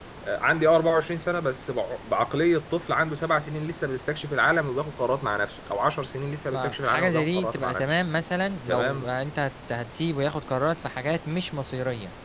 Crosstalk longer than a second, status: present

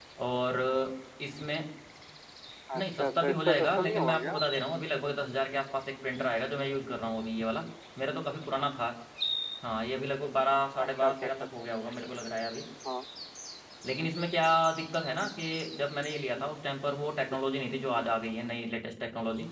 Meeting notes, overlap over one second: present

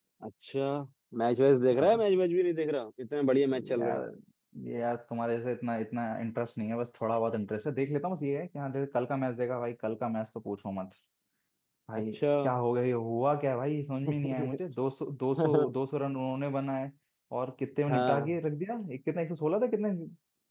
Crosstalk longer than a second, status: none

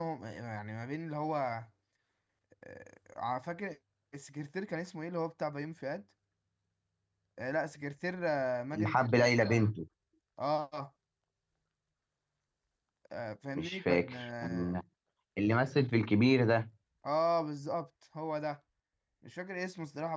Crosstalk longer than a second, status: present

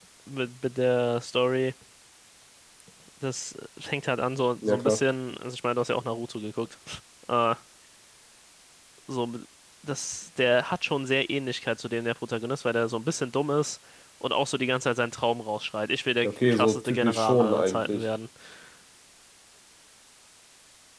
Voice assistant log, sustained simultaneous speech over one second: present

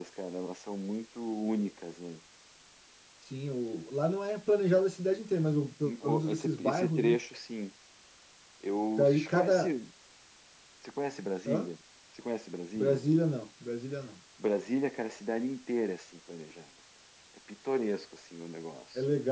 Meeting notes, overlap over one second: present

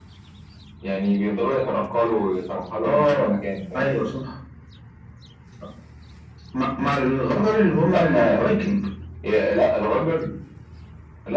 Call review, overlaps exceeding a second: none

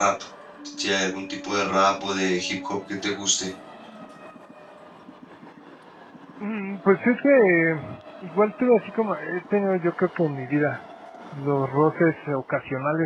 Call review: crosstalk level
none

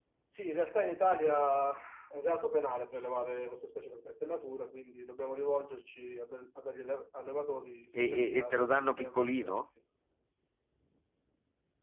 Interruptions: present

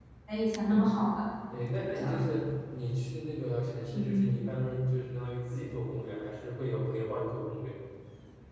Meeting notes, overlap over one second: none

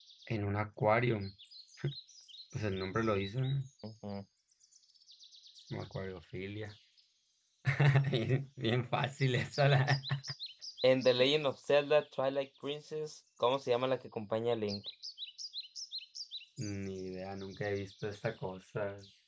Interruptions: none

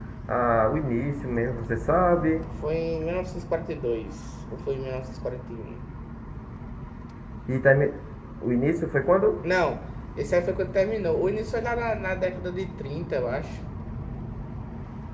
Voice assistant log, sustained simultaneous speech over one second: none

